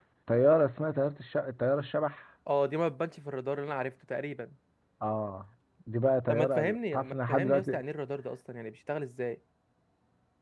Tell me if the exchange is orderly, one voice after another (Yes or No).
No